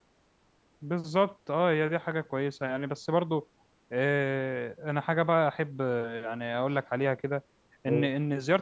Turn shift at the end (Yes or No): No